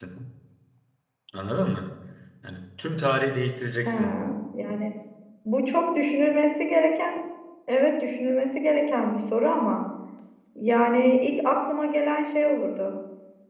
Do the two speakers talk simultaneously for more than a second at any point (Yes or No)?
No